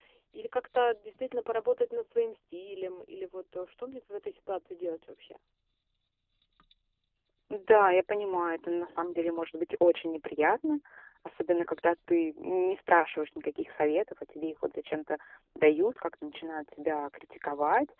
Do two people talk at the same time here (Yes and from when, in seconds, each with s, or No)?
No